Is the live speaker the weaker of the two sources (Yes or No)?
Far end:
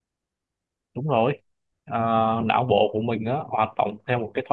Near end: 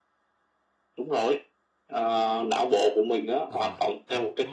Yes